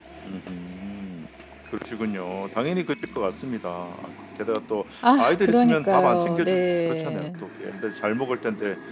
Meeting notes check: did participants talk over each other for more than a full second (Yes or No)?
Yes